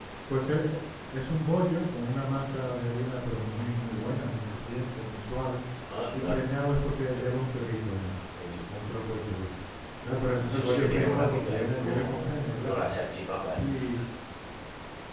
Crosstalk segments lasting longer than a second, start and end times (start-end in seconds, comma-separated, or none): 10.3-12.8